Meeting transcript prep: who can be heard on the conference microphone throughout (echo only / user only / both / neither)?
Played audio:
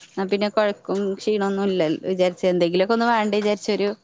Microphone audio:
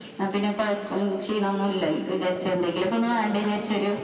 echo only